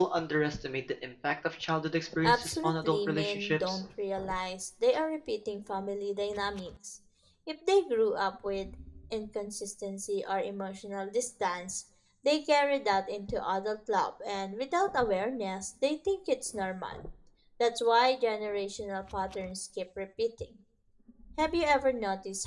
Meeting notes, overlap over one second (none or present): present